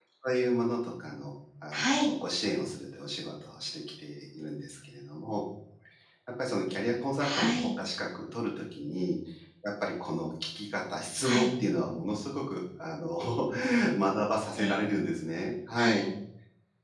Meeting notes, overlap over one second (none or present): none